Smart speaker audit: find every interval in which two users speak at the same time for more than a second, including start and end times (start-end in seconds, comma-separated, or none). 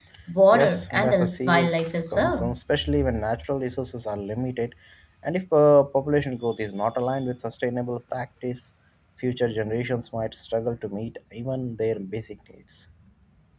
0.5-2.5